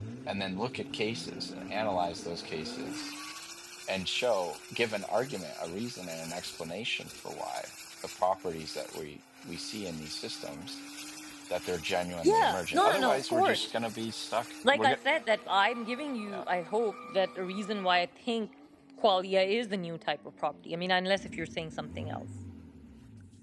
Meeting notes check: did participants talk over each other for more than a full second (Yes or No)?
Yes